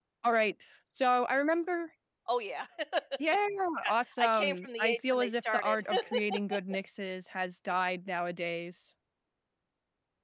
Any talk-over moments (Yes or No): Yes